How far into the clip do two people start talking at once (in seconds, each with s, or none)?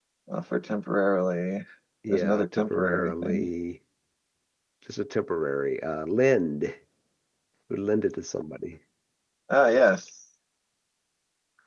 2.1 s